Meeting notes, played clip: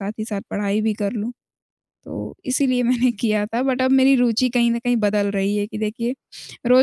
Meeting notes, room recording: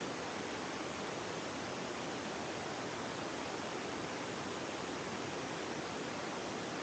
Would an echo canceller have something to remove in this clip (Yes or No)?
No